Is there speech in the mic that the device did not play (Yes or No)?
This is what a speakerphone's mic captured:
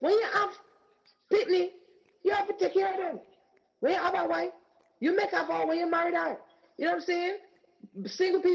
No